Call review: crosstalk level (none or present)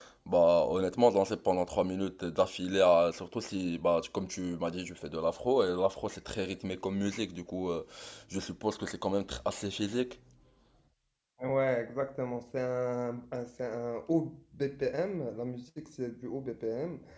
none